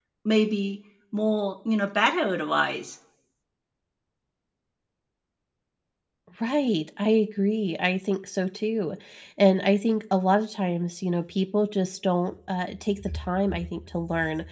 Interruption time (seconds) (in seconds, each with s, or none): none